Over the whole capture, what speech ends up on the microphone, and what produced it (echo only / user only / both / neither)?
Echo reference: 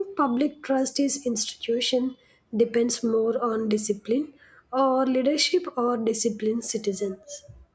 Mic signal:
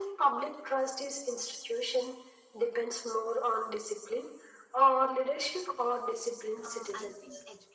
both